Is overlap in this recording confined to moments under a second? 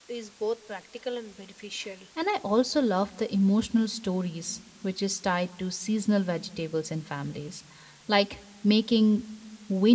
Yes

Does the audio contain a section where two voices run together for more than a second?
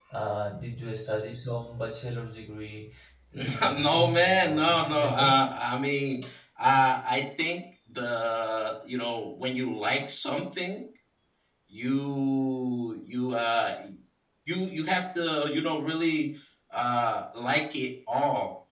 Yes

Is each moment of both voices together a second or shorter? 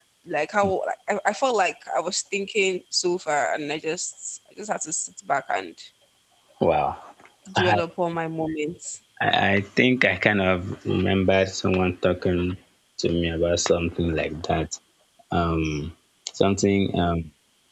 Yes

